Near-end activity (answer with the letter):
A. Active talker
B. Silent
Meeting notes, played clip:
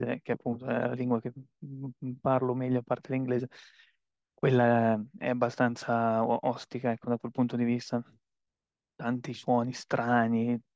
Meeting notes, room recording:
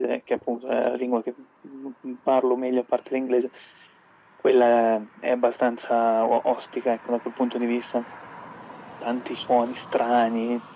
B